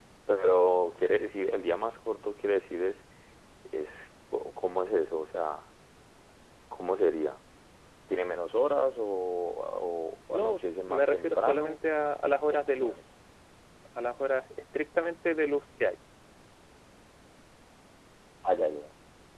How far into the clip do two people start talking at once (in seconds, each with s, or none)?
10.3 s